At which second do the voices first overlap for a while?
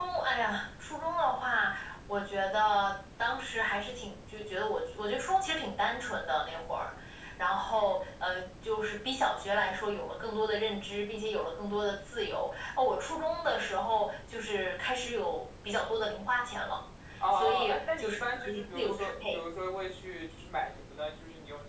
17.3 s

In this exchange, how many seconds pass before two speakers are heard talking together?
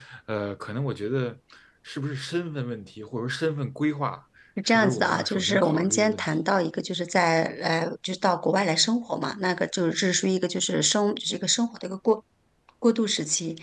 4.7 s

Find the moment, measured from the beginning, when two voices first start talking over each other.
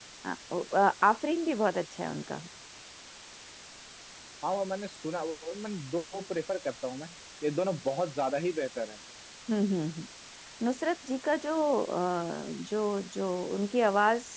none

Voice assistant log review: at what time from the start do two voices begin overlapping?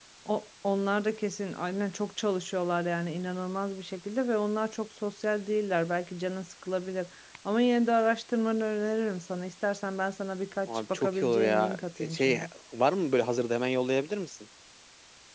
10.7 s

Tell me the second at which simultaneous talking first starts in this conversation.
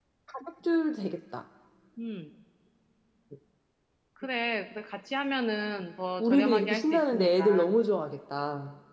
6.2 s

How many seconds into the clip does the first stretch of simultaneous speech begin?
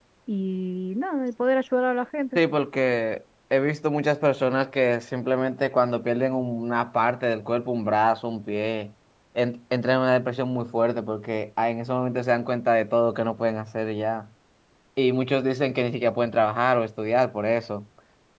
none

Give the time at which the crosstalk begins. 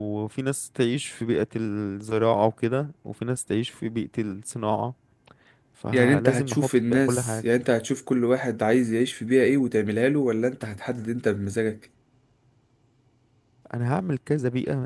5.9 s

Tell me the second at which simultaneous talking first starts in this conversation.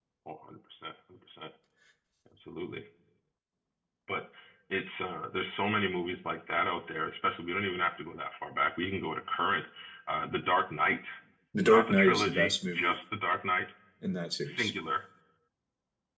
11.6 s

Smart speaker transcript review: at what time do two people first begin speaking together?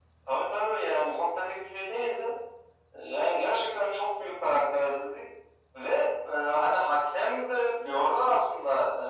none

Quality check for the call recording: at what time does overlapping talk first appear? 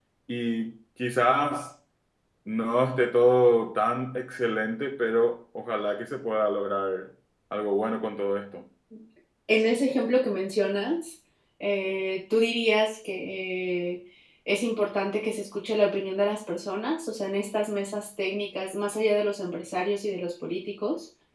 none

